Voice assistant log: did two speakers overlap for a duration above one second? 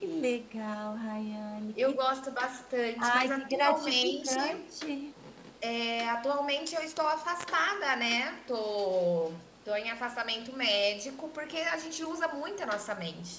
Yes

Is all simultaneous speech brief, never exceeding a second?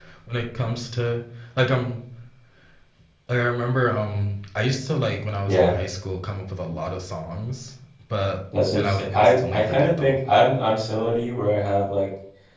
No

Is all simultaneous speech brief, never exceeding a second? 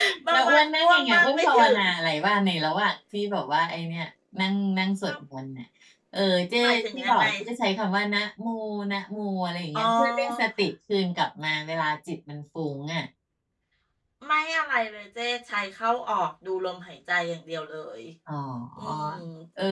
No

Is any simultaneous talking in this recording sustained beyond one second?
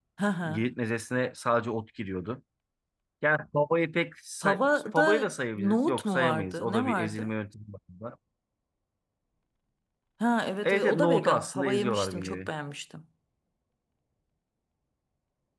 Yes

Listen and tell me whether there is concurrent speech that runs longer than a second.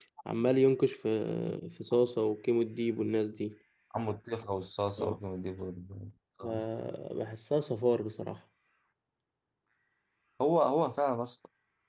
No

